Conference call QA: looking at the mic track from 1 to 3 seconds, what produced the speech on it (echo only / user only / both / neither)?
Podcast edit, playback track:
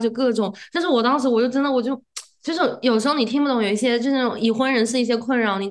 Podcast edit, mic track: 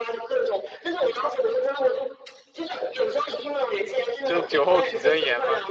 echo only